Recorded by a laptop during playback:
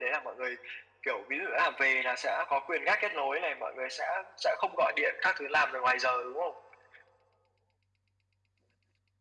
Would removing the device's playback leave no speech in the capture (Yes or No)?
Yes